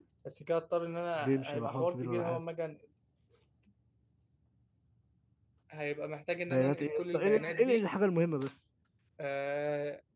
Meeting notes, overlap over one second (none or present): present